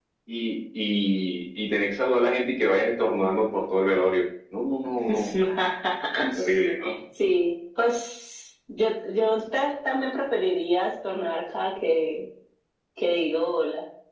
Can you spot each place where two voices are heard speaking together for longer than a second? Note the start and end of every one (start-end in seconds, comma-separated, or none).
none